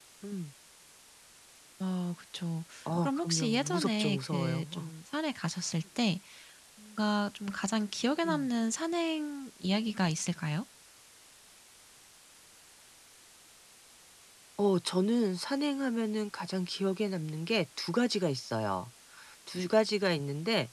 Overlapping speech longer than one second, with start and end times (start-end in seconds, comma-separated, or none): 3.0-4.9